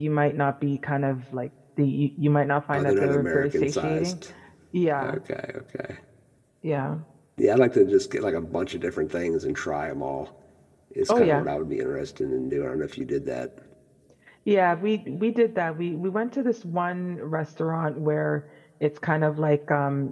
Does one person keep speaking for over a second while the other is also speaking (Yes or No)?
Yes